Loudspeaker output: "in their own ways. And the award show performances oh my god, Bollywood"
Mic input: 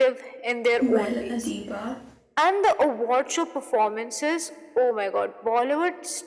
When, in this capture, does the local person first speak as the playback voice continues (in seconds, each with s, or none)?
0.8 s